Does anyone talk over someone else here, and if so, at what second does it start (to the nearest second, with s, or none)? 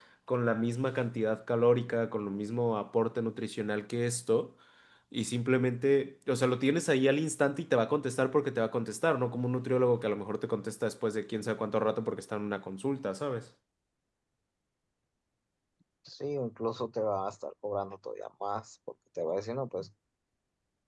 none